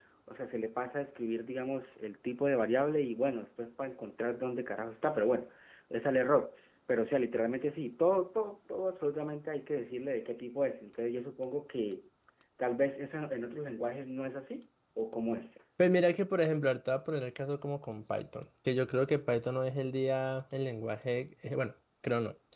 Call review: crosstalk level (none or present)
none